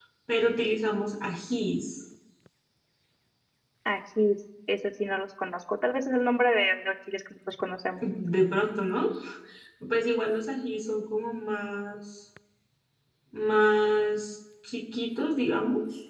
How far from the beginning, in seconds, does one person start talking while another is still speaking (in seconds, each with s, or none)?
none